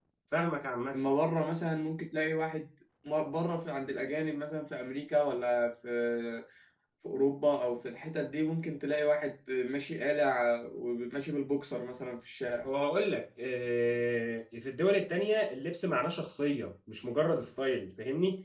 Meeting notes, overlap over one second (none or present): none